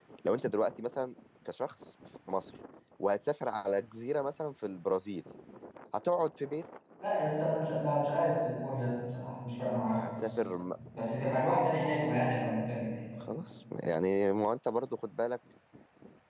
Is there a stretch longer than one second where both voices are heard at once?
No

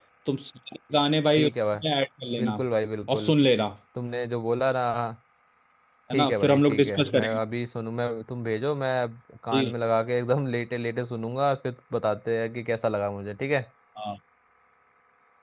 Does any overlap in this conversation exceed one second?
Yes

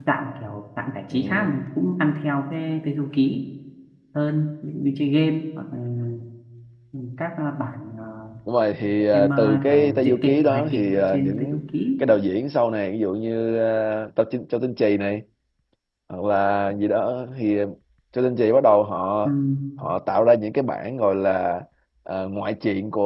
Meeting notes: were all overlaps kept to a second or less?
No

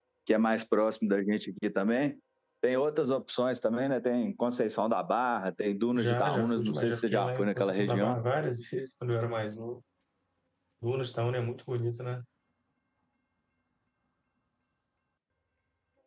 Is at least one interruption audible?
Yes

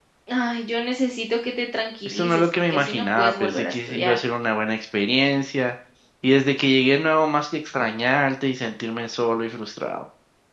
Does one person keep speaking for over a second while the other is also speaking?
Yes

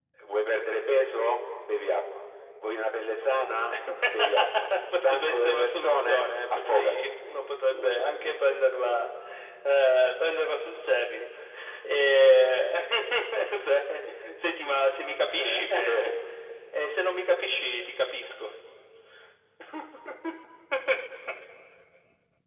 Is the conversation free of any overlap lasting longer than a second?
No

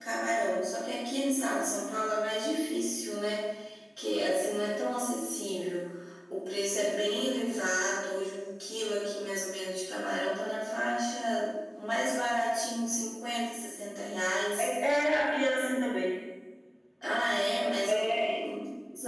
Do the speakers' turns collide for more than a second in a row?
No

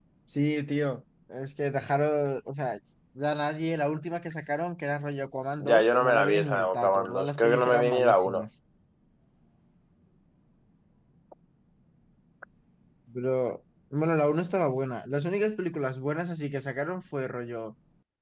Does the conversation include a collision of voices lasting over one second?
Yes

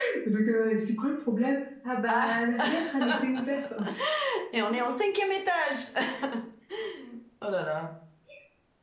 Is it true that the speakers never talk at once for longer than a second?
No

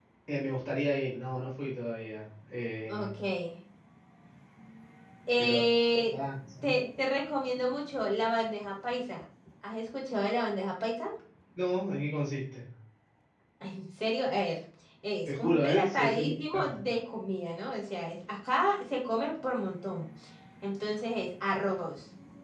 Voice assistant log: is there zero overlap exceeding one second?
No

